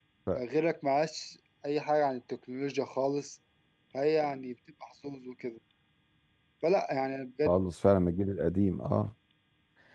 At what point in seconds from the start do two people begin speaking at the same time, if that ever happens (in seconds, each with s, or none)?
none